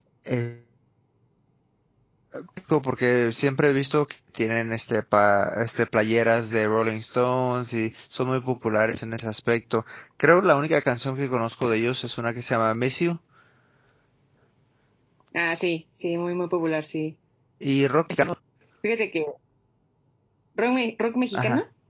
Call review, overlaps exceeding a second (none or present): none